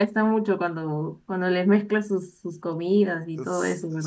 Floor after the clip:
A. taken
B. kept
A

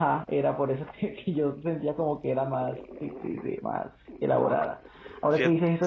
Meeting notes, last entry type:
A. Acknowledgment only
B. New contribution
A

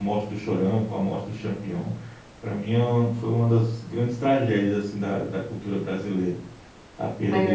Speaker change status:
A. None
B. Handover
B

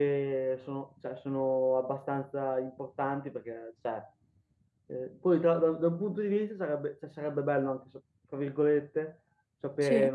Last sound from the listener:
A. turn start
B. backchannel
B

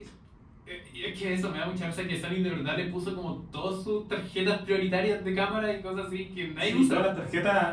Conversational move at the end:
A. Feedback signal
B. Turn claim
B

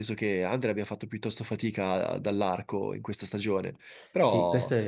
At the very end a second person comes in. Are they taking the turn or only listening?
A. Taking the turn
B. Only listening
A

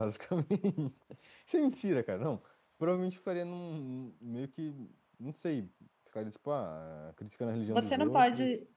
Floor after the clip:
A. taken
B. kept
A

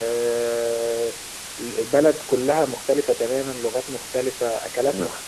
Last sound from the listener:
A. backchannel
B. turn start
A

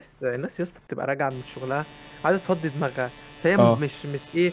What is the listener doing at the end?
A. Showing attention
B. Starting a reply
A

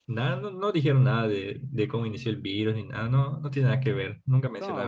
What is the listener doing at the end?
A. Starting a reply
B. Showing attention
A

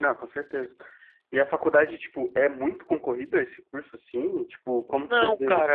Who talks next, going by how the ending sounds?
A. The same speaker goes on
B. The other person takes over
B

